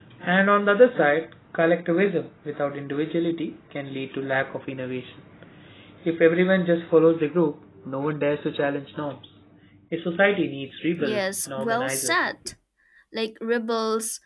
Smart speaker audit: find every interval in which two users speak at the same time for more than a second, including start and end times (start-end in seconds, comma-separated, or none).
11.0-12.3